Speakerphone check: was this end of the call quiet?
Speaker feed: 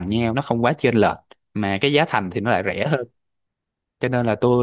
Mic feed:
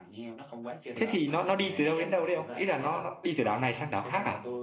No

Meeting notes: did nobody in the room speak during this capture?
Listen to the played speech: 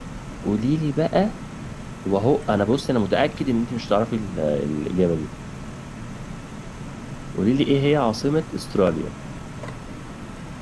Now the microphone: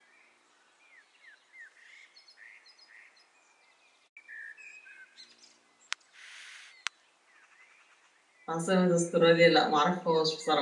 No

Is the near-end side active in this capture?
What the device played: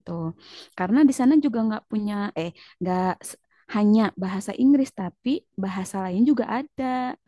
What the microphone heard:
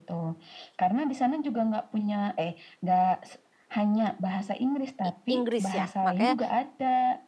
Yes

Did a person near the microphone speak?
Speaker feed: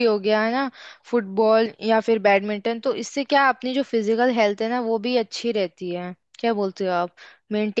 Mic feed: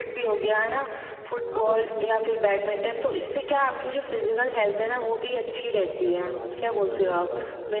Yes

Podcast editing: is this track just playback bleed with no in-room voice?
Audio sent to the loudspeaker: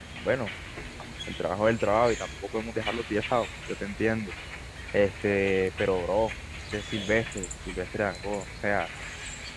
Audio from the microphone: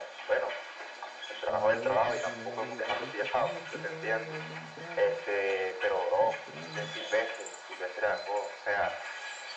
No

